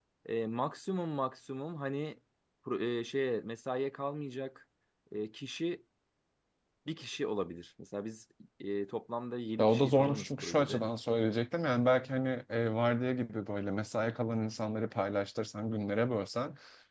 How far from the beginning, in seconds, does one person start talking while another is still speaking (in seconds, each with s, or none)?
9.6 s